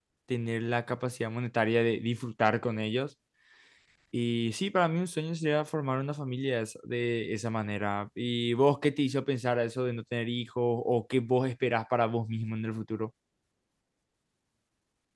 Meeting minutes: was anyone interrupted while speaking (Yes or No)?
No